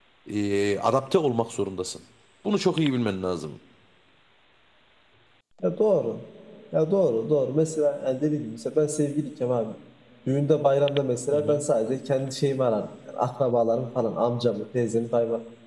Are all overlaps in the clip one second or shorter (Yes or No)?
Yes